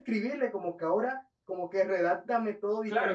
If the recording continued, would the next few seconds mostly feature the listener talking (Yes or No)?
Yes